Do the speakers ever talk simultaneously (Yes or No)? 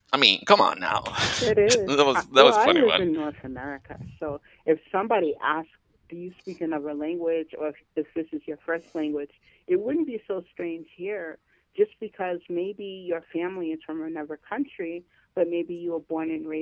Yes